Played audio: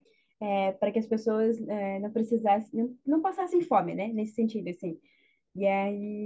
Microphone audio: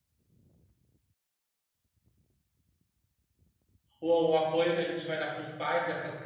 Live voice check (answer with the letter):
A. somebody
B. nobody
A